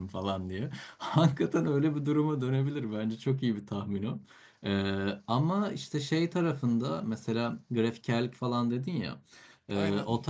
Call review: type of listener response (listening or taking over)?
listening